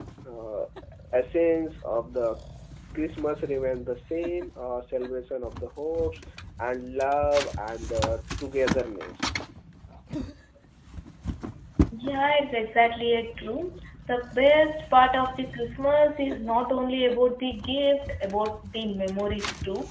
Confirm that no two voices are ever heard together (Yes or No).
Yes